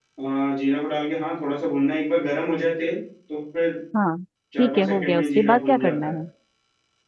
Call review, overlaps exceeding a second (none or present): present